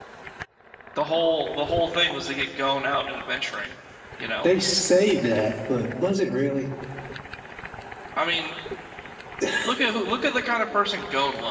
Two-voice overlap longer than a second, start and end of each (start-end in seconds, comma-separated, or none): none